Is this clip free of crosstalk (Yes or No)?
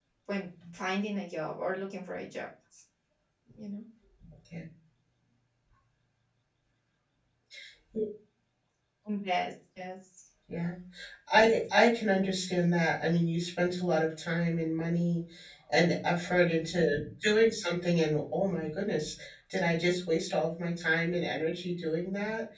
Yes